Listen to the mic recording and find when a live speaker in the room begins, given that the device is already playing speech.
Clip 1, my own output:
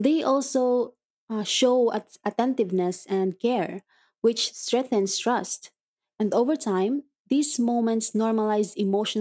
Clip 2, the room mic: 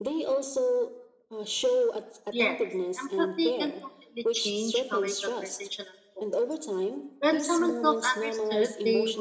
2.3 s

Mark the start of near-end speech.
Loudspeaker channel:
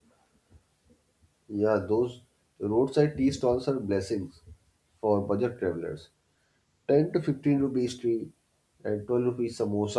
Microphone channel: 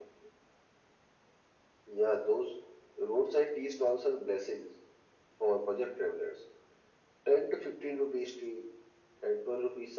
none

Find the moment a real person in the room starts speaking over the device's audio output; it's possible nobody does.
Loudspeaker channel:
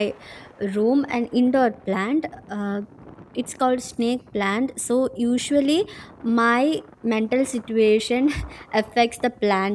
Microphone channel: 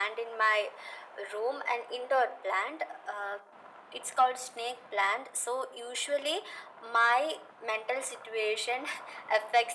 none

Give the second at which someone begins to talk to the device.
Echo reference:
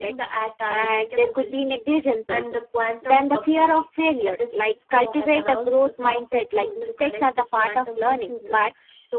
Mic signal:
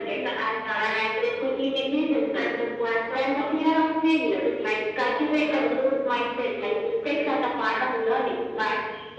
none

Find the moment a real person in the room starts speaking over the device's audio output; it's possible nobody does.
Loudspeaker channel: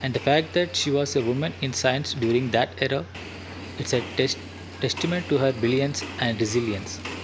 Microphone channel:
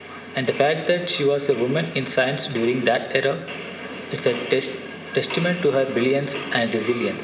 none

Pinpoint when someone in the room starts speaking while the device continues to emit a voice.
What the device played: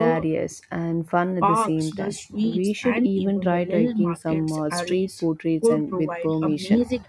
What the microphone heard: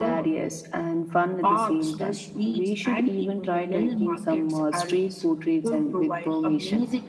none

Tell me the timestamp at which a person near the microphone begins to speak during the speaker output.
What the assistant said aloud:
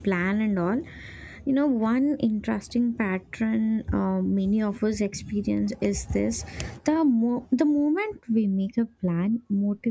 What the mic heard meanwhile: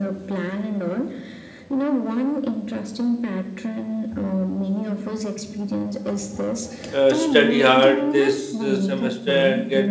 6.9 s

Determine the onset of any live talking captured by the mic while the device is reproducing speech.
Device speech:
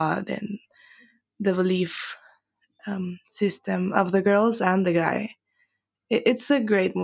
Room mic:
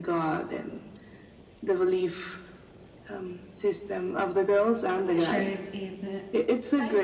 4.9 s

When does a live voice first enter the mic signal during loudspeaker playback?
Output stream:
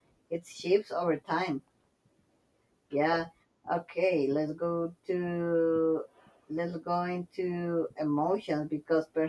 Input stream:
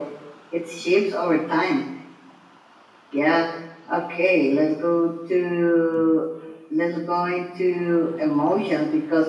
none

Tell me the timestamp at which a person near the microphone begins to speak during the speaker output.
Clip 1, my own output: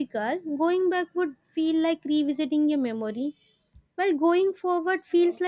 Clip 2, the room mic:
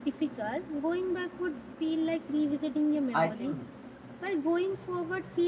3.1 s

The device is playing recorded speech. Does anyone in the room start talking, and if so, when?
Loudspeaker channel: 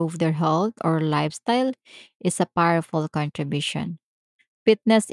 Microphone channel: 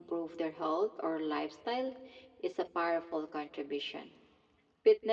none

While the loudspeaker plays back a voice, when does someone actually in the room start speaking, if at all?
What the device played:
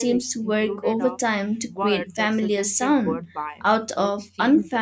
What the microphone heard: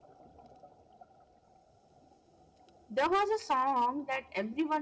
2.9 s

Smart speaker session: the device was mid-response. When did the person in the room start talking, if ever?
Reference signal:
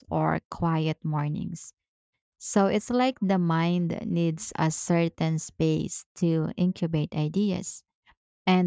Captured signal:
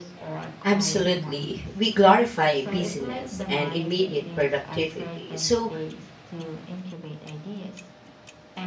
0.6 s

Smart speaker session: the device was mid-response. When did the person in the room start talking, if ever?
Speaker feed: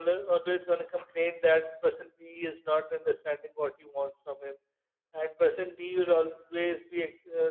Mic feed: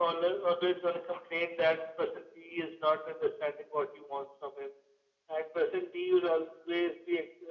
none

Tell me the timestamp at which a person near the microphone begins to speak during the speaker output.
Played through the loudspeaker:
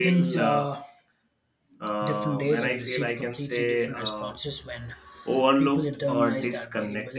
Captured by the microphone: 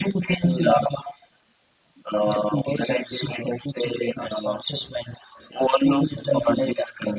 none

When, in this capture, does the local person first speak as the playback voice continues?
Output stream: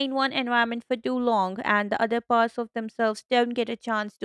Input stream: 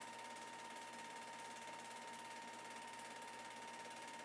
none

